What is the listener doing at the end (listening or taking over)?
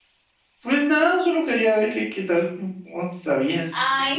taking over